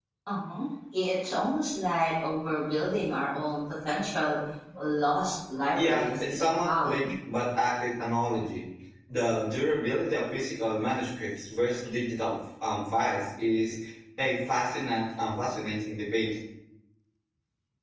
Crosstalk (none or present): present